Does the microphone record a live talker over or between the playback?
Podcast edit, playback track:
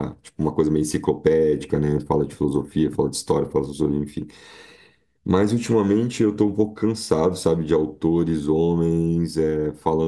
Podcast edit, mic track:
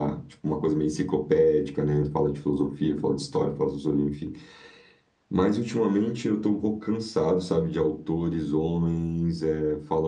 No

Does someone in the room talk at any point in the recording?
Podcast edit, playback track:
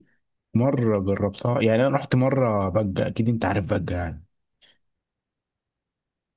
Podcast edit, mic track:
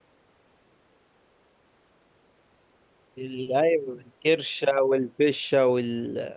Yes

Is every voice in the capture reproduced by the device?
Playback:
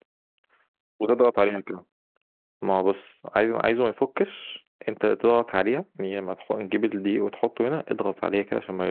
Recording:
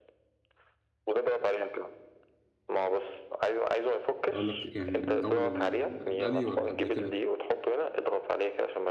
No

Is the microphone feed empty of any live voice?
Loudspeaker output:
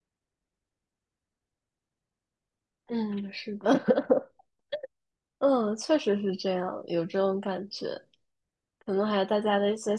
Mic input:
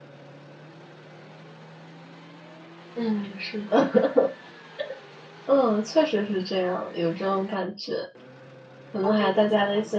No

